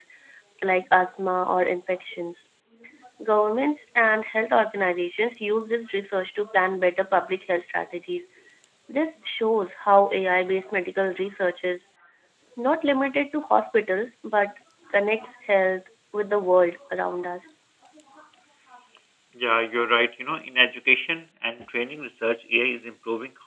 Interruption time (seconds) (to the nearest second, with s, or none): none